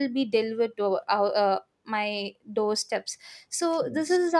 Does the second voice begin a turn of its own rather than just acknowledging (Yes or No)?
No